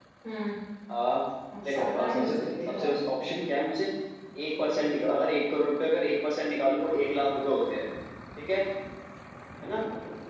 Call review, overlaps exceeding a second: present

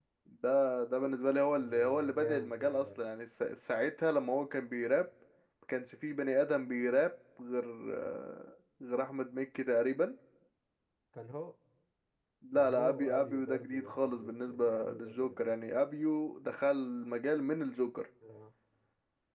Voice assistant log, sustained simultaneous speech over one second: present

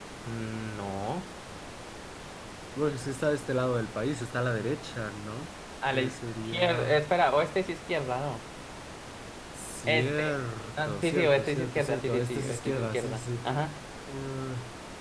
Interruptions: present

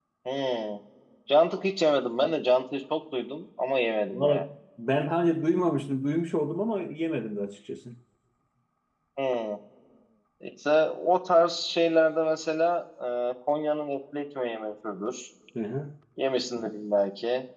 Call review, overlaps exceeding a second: none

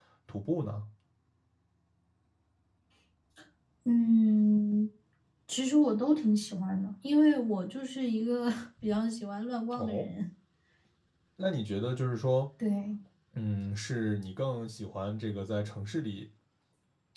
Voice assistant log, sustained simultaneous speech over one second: none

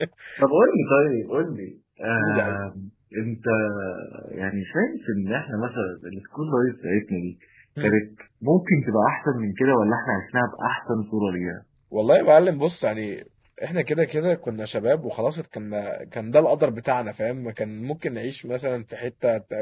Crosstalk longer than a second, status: none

